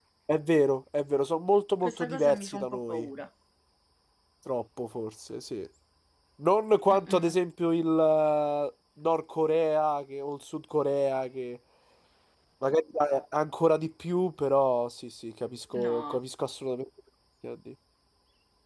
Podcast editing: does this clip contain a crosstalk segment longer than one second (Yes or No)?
Yes